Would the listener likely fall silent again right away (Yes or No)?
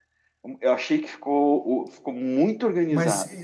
No